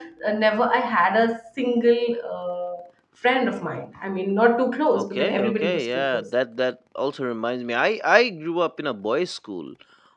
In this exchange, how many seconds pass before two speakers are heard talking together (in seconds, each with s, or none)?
4.9 s